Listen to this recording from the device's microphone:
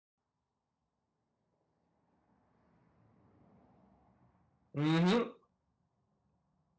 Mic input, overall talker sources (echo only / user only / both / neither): user only